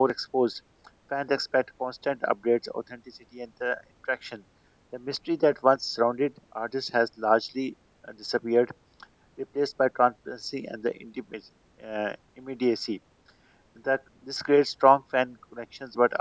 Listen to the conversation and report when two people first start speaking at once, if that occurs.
none

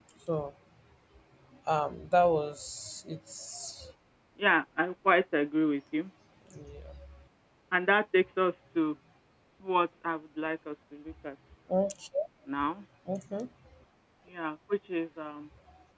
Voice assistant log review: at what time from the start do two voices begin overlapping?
none

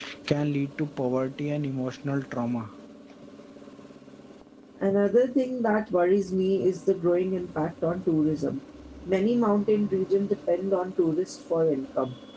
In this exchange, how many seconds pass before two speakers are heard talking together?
none

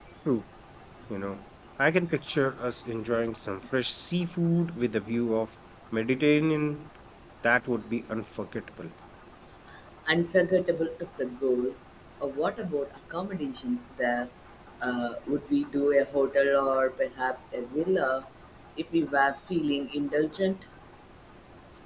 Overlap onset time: none

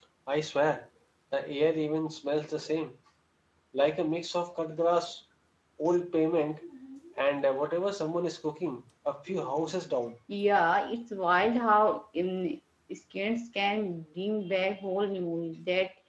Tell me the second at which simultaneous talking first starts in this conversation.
none

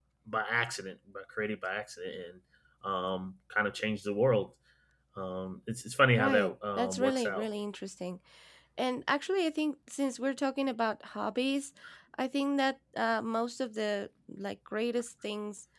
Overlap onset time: 6.2 s

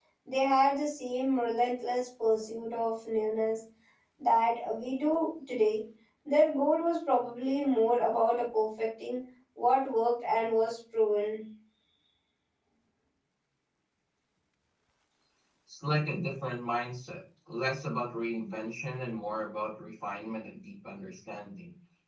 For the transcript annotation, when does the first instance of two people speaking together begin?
none

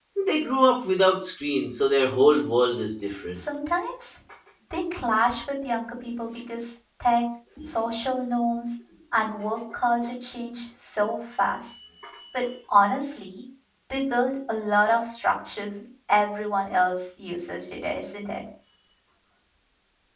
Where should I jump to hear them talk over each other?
none

